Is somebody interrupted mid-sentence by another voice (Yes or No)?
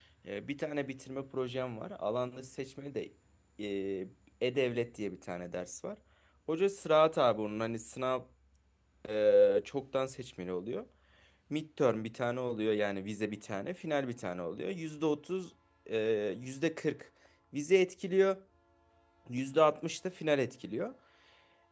No